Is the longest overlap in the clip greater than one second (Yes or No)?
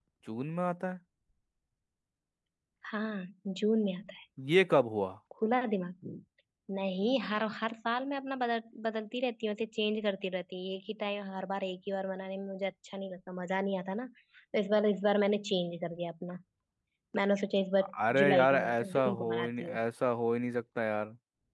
Yes